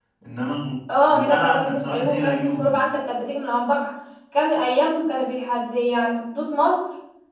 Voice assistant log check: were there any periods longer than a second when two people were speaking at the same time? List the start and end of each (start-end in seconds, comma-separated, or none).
1.1-2.8